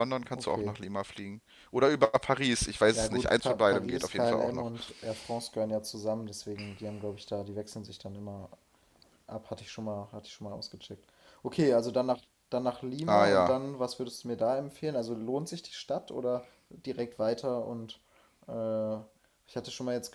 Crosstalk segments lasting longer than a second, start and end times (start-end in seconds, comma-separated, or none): 2.9-4.6